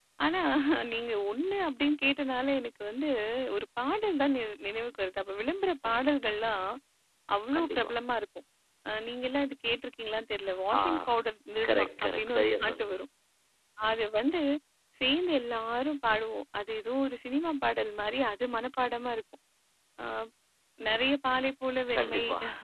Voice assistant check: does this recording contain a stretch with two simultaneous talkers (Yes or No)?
Yes